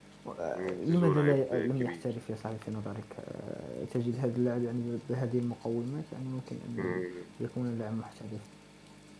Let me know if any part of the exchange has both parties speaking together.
Yes, from 0.5 s

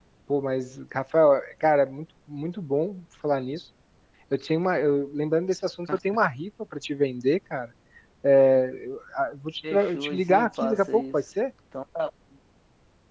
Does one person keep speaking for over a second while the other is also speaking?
Yes, from 9.6 s

